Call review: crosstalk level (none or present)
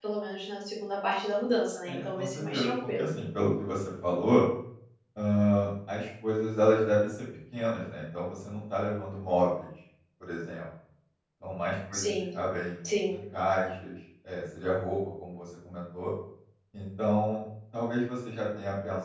present